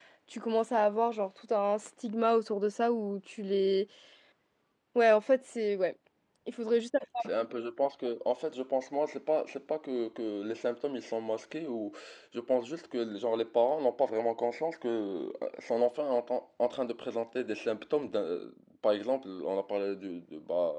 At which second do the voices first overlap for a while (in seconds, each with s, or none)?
none